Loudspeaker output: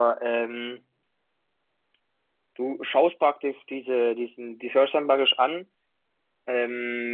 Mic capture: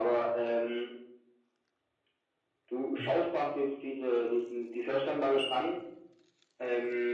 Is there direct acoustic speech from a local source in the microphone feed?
Yes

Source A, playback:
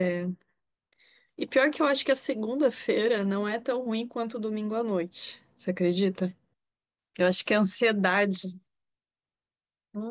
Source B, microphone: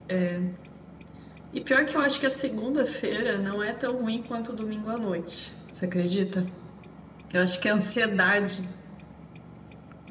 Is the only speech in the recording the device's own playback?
Yes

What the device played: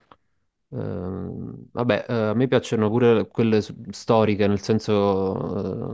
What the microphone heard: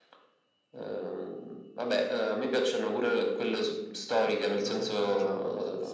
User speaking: Yes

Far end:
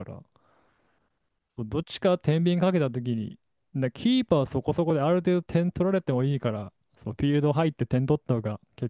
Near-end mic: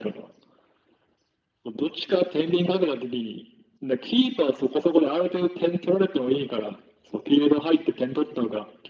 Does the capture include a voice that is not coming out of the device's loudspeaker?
No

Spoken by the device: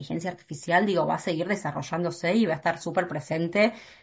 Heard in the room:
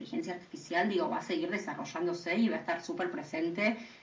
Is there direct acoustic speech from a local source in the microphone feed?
No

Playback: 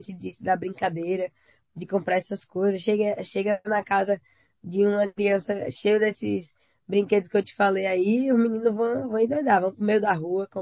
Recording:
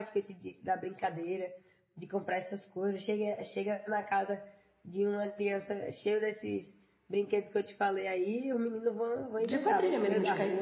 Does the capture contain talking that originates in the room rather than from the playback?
Yes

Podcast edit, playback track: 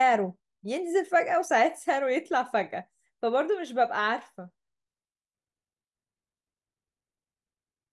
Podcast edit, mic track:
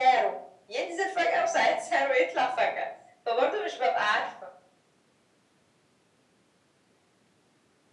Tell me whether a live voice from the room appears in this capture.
No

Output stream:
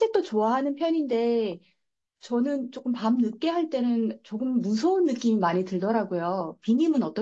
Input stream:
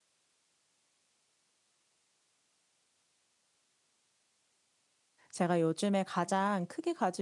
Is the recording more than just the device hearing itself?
Yes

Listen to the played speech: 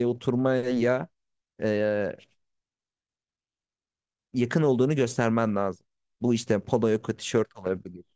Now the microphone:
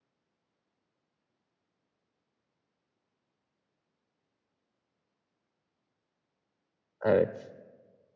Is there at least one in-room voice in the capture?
Yes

